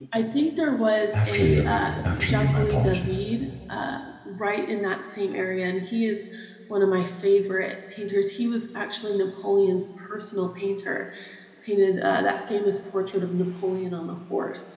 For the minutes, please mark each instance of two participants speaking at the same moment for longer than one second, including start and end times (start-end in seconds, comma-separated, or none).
1.1-3.2